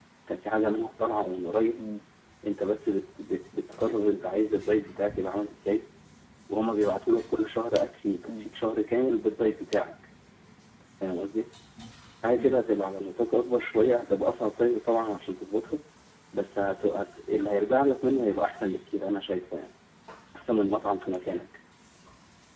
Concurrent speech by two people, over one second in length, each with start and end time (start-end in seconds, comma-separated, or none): none